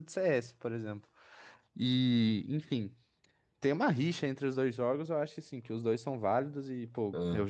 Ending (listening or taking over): listening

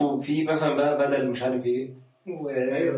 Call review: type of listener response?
taking over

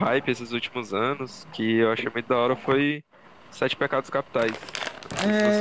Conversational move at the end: taking over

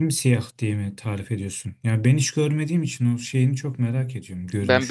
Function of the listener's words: taking over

